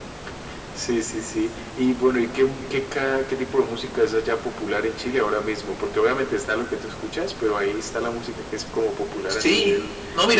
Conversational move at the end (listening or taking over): taking over